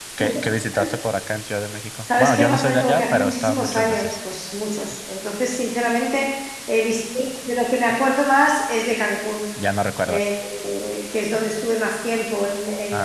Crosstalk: present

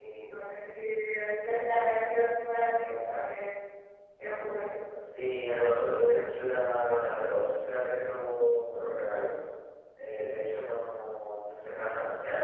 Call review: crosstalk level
none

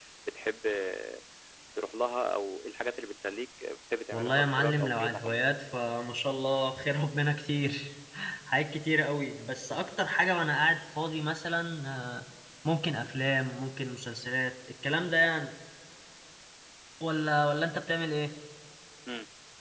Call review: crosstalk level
present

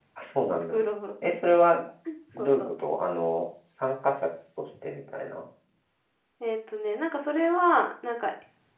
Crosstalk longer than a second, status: none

